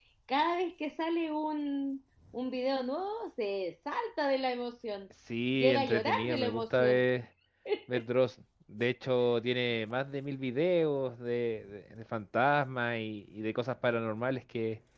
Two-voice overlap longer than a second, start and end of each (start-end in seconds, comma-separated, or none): 5.5-7.0